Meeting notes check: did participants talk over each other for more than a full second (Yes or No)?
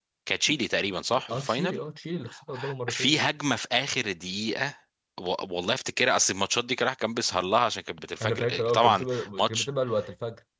Yes